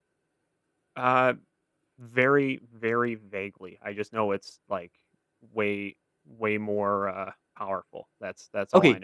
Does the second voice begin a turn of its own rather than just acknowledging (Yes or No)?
Yes